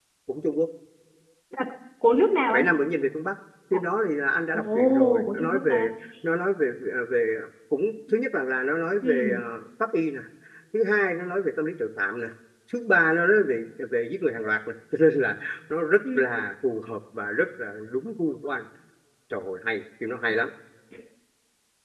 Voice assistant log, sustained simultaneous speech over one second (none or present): present